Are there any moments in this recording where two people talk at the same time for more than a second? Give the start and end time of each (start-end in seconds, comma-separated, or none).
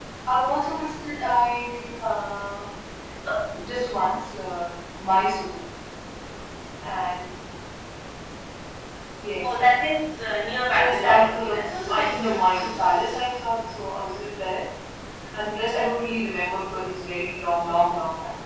10.7-12.7